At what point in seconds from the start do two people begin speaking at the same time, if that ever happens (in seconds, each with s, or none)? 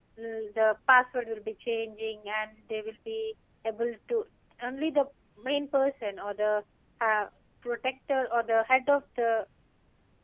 none